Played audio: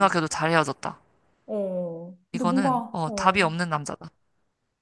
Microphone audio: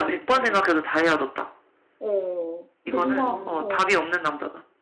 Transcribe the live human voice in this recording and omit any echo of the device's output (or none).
음,